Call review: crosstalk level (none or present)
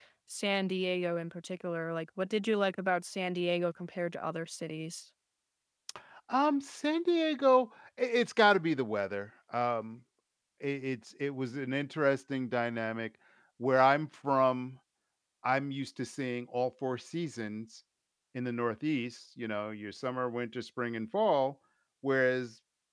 none